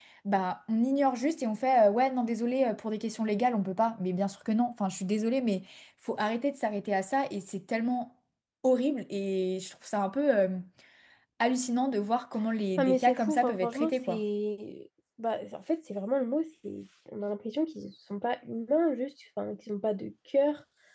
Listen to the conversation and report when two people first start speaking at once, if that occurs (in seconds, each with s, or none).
12.8 s